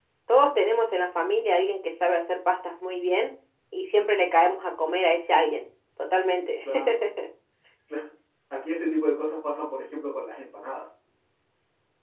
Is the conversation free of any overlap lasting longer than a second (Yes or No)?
Yes